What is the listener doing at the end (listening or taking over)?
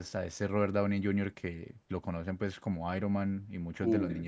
listening